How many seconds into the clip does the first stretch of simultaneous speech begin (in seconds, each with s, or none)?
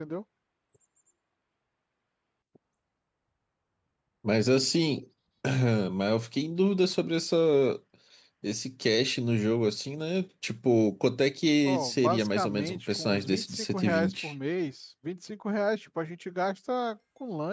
11.7 s